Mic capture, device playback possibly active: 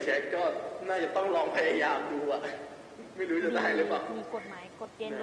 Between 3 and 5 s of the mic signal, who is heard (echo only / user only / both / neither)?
both